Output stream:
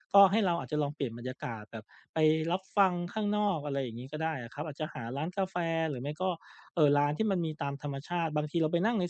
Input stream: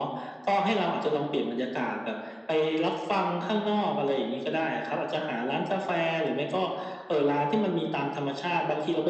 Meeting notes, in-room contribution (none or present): none